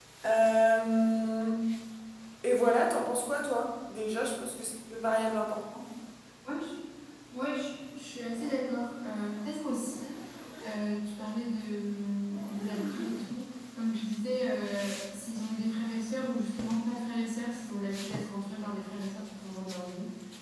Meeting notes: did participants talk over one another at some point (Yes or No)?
No